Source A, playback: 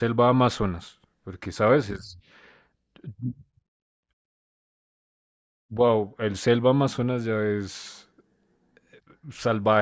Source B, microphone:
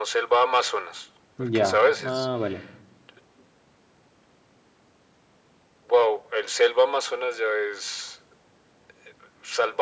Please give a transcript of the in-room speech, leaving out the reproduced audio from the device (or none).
Ya, ah, vale.